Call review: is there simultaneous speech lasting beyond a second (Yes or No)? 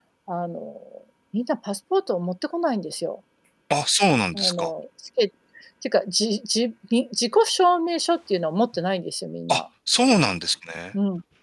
No